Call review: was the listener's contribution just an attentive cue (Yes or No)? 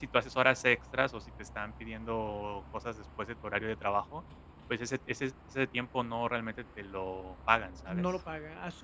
No